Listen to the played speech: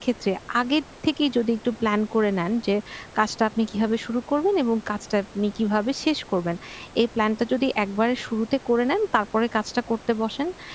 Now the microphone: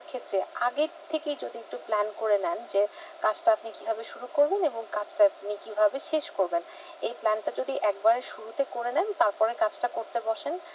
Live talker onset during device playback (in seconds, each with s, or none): none